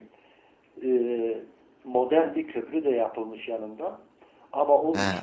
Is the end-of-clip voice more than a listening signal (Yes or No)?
No